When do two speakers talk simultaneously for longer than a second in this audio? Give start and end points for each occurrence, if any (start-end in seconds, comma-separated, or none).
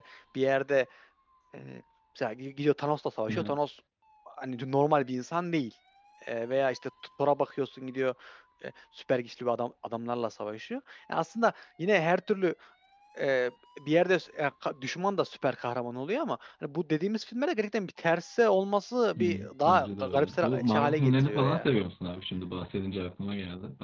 19.6-21.7